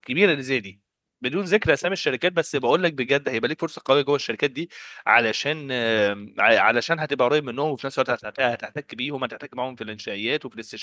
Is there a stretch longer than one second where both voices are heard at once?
No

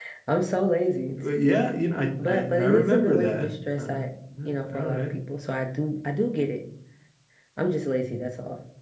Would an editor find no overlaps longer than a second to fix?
No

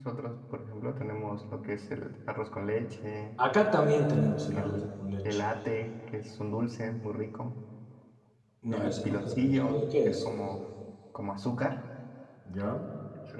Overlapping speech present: Yes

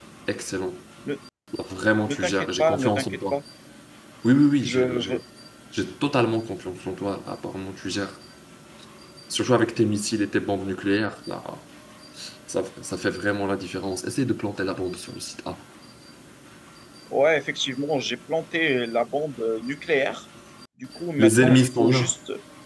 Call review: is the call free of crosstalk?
No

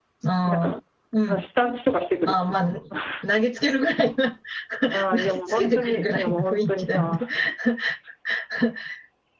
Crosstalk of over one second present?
Yes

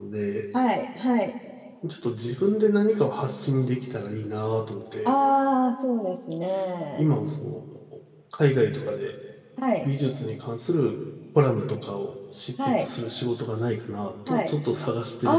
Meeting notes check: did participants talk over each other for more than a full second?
No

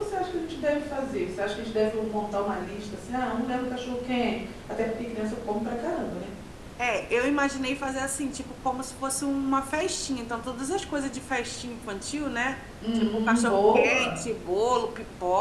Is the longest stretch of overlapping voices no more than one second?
No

